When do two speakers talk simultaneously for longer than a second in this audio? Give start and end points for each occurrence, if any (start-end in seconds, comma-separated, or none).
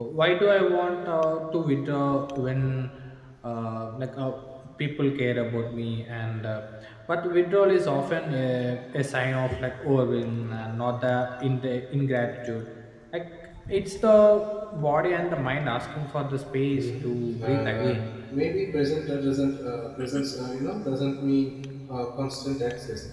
16.8-18.0